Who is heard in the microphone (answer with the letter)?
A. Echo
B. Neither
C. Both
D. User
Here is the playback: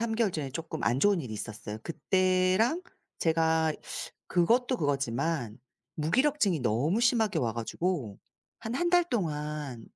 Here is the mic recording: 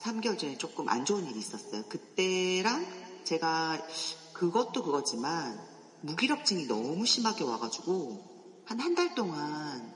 A